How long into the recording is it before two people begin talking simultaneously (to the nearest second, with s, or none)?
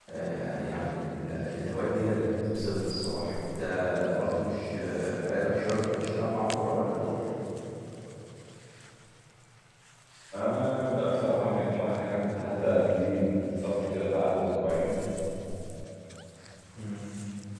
none